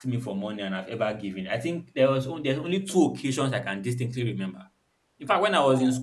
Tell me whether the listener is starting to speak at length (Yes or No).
No